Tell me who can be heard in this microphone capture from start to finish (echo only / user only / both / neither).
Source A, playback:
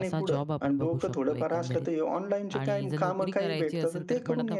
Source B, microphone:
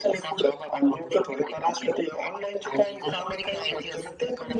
echo only